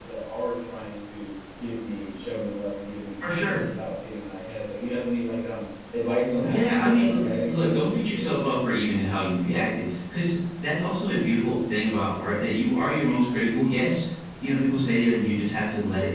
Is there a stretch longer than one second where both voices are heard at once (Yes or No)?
Yes